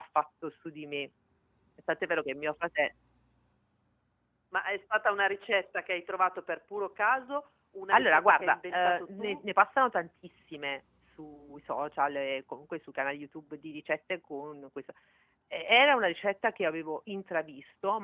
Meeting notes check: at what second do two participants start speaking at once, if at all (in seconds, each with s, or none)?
7.9 s